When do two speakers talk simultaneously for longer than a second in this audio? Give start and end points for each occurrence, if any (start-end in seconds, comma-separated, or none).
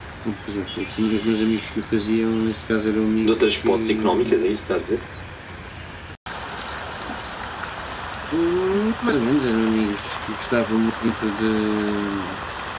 3.2-4.5